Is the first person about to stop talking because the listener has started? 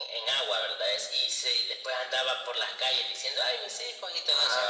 Yes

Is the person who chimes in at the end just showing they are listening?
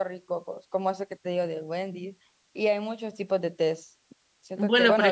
No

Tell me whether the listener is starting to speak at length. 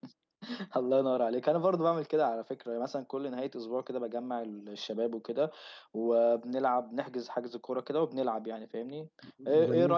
No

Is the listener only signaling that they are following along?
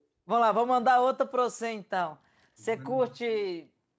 Yes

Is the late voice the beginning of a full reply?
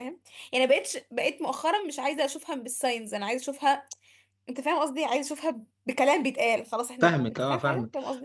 Yes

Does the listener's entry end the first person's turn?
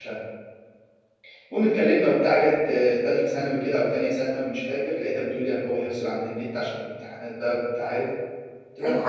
Yes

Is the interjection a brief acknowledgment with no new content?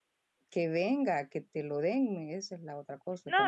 No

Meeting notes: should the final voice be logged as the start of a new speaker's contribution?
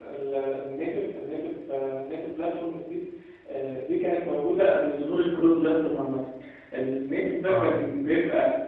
No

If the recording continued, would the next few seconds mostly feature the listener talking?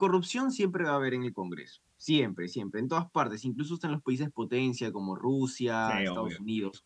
No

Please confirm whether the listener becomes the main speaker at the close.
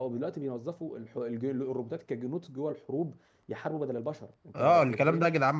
Yes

